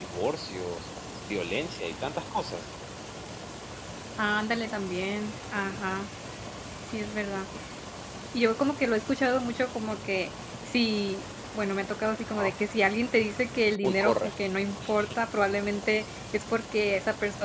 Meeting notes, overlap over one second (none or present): none